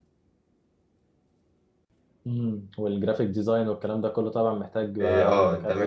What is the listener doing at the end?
taking over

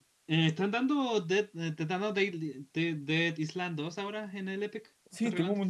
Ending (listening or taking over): taking over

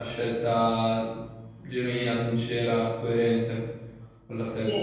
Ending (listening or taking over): taking over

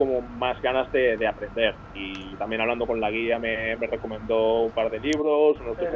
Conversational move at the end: taking over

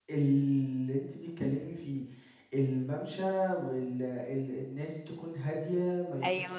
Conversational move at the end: listening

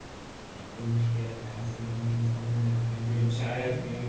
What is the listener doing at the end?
taking over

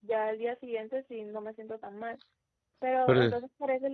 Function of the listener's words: listening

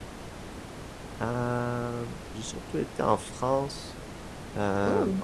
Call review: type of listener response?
listening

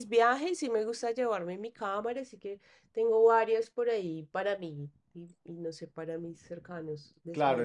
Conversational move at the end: taking over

